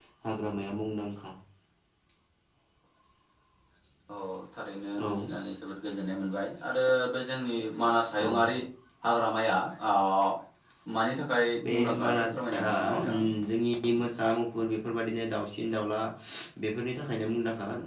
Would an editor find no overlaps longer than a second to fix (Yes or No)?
No